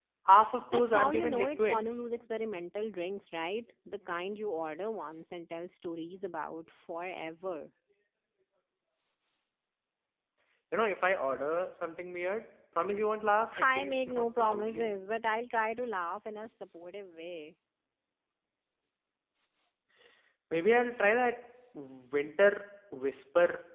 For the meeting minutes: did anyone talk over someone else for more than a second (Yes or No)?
Yes